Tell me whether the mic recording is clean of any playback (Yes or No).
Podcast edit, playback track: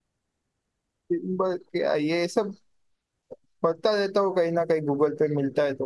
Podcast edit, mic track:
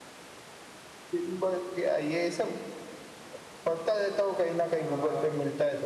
No